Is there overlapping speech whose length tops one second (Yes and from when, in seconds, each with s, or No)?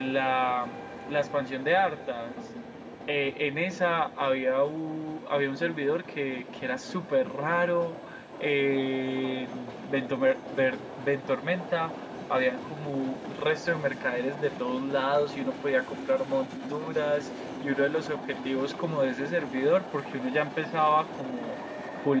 No